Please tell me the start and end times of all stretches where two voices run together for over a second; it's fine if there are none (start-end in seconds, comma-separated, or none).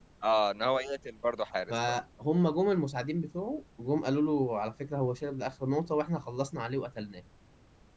none